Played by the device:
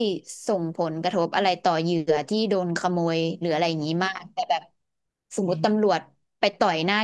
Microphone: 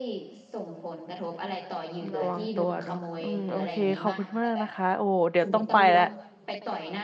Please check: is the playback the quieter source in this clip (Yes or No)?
Yes